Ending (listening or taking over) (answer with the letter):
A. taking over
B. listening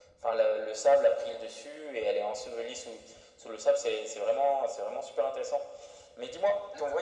B